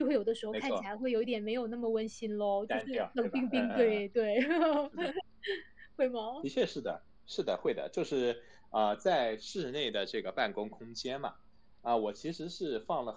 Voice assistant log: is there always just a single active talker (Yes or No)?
No